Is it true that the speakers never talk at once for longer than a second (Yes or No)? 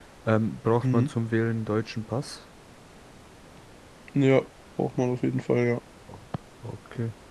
Yes